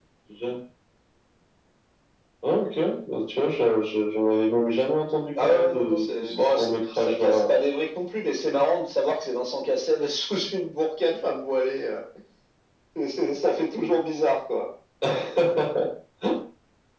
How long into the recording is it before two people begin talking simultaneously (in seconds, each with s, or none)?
5.4 s